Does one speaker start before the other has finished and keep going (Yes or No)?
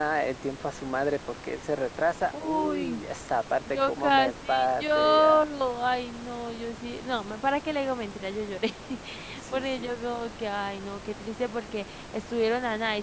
Yes